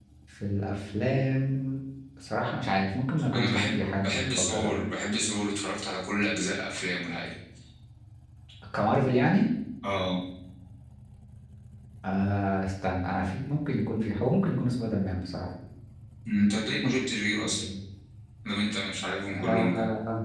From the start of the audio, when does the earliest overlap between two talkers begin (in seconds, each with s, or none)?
3.3 s